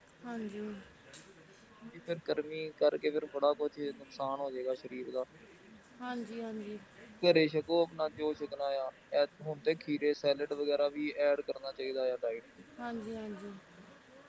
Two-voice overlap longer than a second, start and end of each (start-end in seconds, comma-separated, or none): none